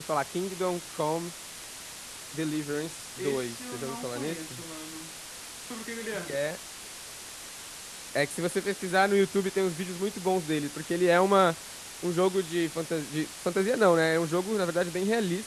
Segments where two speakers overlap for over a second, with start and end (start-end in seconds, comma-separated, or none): 3.2-4.6